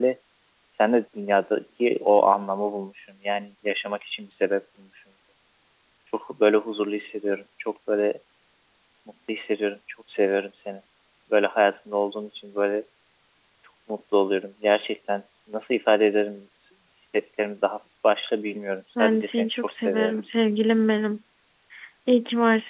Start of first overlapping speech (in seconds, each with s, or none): 19.0 s